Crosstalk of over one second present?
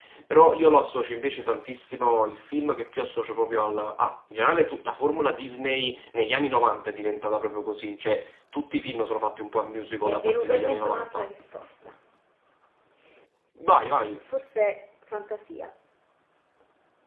Yes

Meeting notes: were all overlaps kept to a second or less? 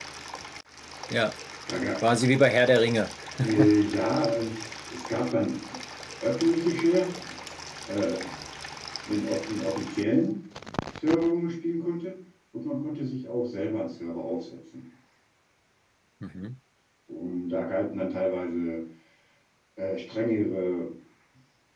Yes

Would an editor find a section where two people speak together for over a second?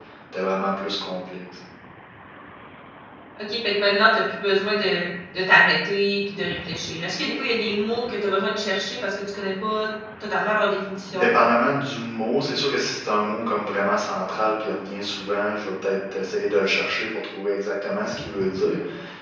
No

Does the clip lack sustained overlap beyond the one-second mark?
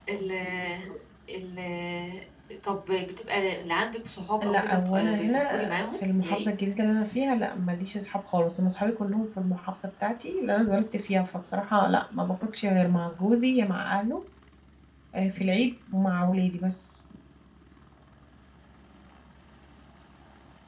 No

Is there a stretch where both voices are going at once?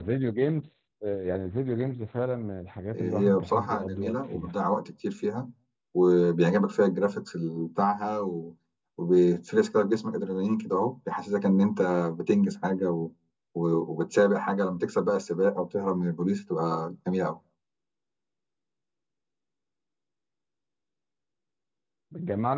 Yes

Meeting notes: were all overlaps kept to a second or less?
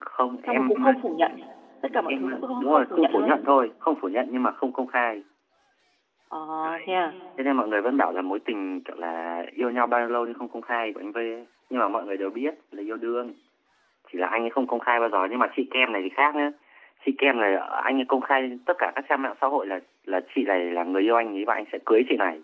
No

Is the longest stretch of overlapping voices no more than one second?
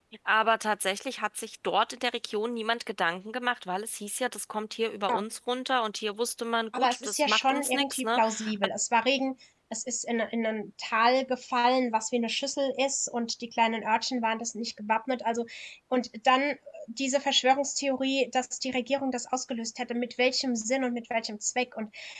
No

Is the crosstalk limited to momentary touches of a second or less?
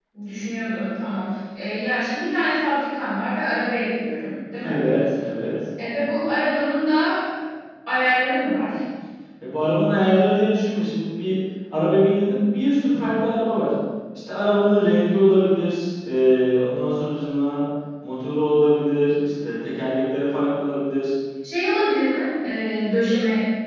Yes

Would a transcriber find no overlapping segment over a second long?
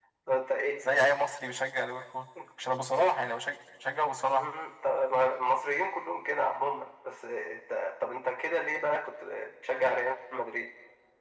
Yes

